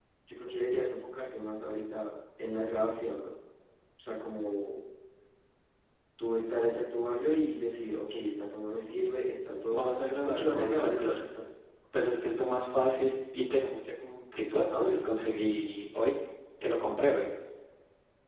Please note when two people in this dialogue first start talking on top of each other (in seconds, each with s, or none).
9.7 s